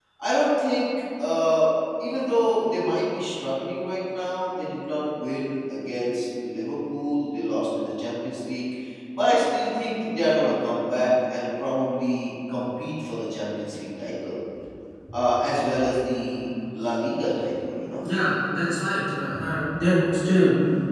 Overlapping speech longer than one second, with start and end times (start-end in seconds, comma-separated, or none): none